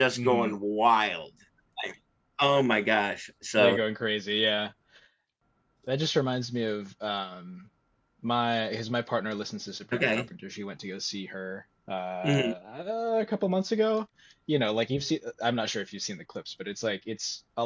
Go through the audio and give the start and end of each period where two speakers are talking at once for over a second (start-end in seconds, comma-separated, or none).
none